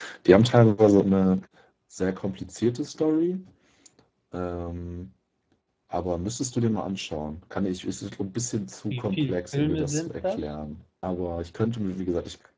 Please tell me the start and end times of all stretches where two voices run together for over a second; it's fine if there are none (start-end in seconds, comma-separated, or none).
8.9-10.5